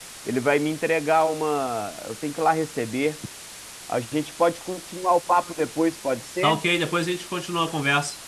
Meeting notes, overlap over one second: none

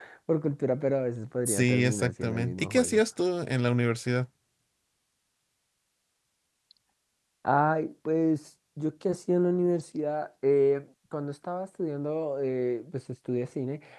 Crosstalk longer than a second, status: present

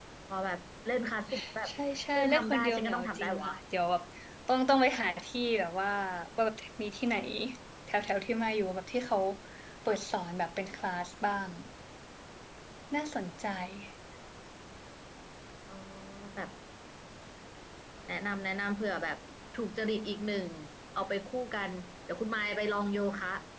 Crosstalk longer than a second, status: present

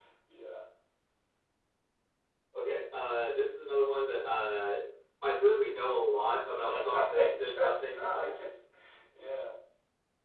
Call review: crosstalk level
present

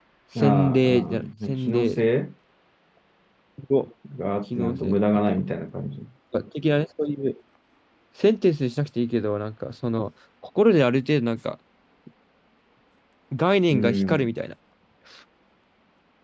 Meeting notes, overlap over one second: present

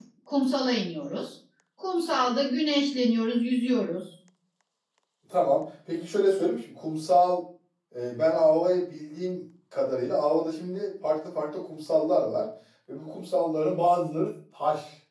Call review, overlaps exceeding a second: none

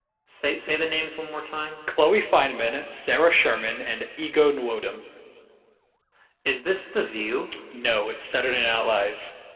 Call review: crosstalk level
none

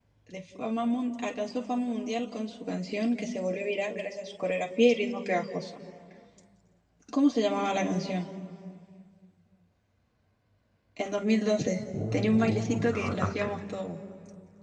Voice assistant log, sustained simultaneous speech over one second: present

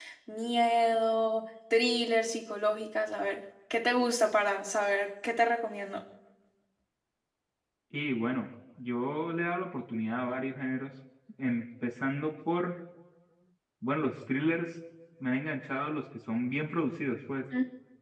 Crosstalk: none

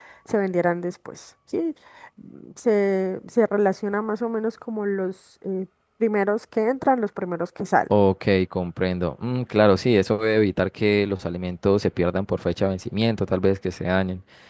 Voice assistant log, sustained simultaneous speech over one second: none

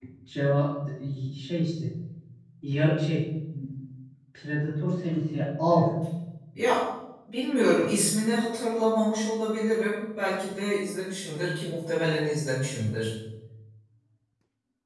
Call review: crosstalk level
none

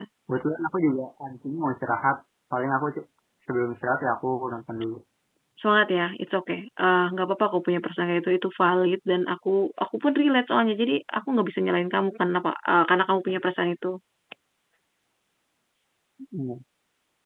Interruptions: none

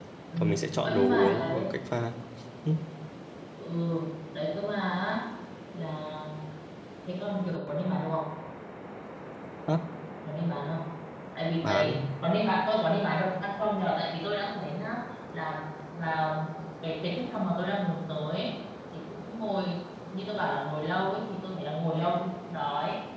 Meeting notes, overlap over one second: present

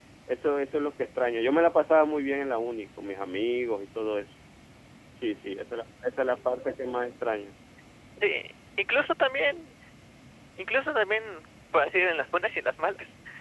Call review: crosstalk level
none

